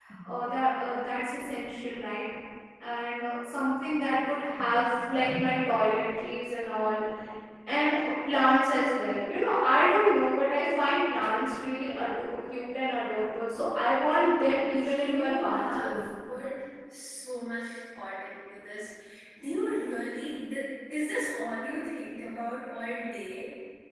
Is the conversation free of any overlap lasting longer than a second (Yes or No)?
No